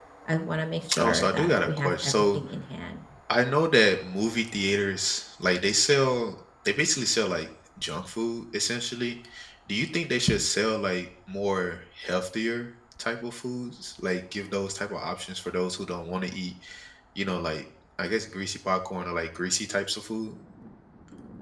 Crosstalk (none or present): present